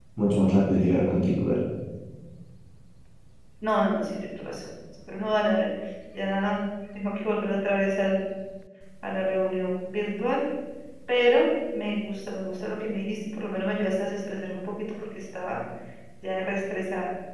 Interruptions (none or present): none